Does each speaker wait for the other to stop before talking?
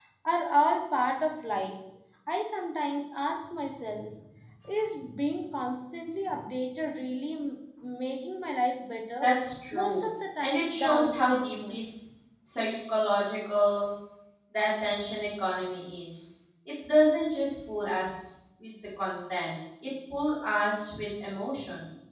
No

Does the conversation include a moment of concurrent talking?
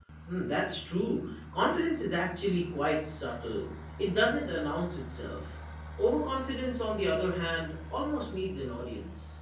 No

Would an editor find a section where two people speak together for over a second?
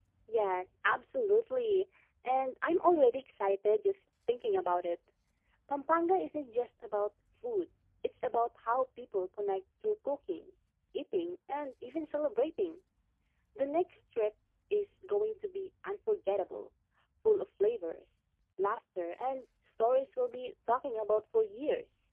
No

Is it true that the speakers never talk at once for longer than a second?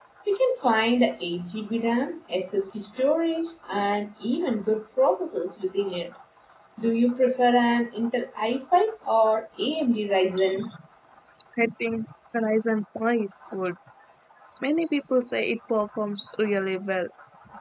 Yes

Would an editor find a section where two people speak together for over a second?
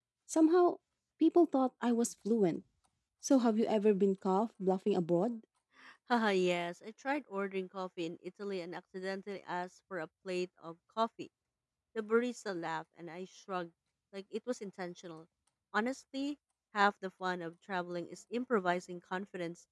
No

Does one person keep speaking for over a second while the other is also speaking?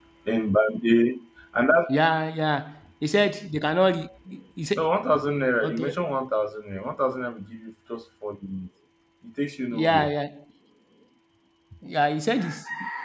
No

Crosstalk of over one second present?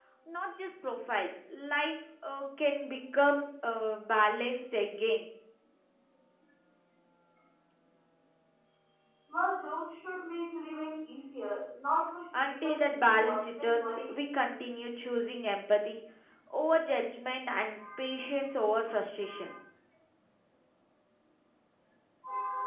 Yes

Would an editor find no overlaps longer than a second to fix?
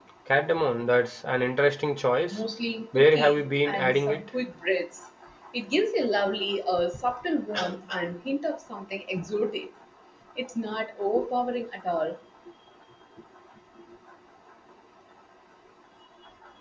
No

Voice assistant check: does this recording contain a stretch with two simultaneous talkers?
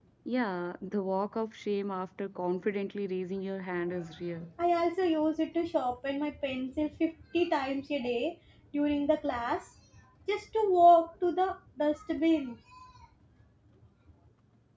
No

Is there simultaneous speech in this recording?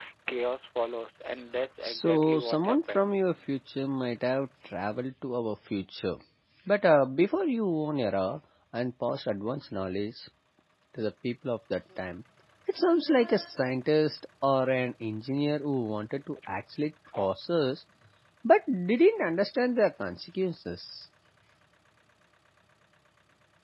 Yes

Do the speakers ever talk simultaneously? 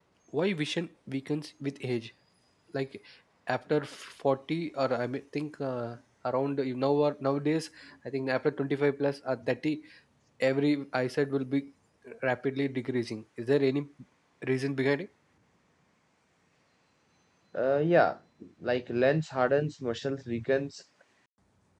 No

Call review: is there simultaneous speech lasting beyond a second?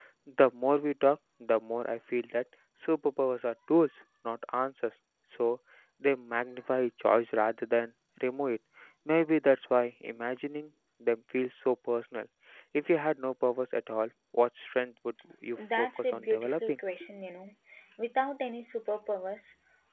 Yes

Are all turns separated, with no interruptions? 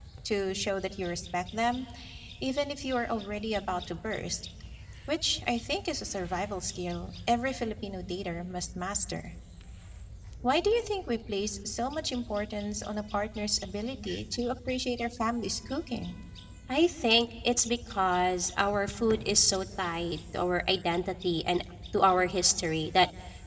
Yes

